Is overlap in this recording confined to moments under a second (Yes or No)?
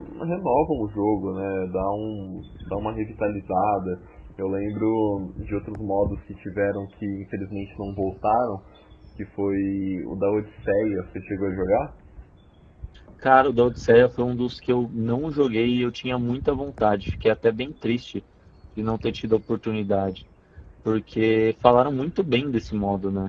Yes